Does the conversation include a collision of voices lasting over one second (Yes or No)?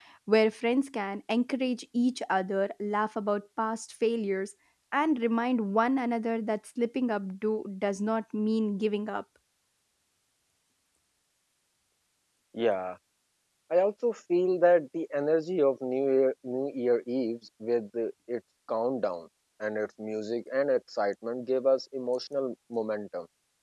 No